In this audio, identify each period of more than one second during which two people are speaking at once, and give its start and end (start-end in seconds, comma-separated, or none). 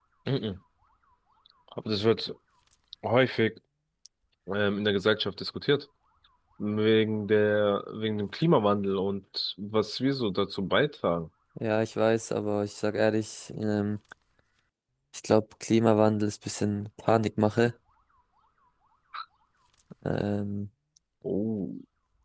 none